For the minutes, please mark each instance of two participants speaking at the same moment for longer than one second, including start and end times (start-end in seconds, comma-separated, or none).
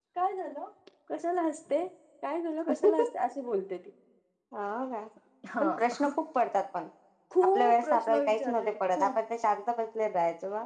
7.5-9.2